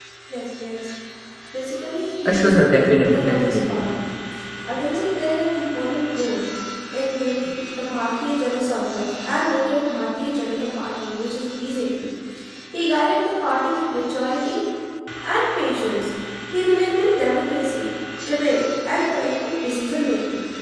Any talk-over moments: Yes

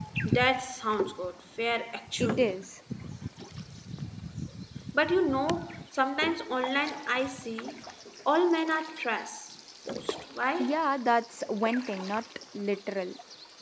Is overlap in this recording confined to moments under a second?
Yes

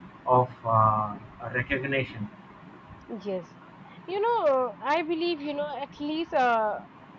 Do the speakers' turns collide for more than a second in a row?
No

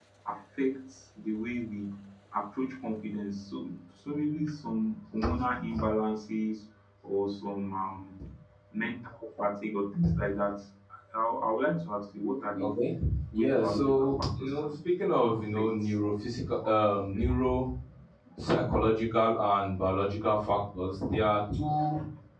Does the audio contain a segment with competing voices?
Yes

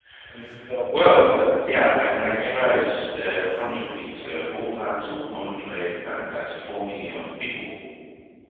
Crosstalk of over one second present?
Yes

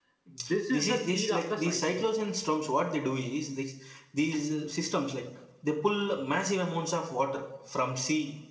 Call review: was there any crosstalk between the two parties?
Yes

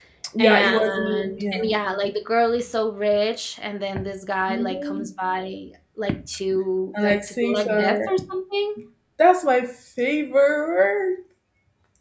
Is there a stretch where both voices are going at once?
Yes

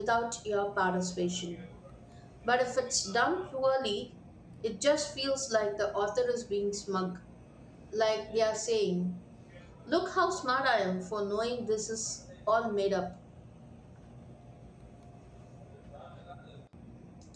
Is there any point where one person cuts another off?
No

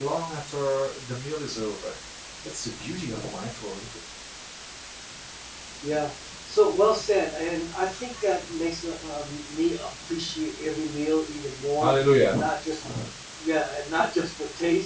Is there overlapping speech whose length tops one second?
No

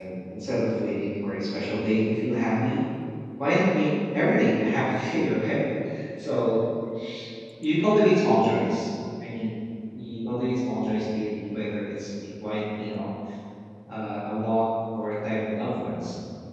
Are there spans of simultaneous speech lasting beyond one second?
No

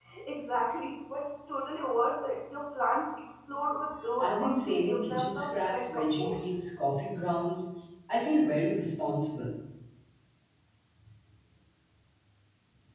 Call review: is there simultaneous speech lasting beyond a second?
Yes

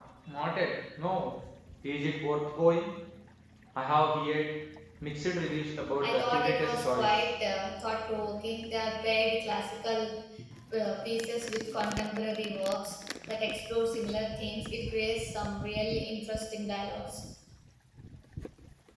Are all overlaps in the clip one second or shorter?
No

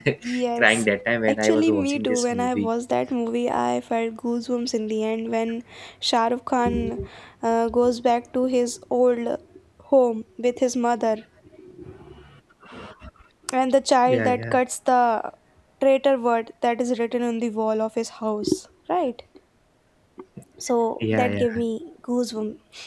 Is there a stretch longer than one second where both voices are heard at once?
Yes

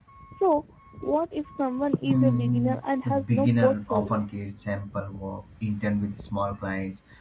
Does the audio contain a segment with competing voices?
Yes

